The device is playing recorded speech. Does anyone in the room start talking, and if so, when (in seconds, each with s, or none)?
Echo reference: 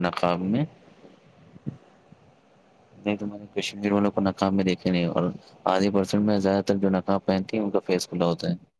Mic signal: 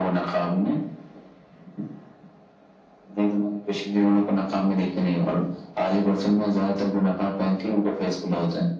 none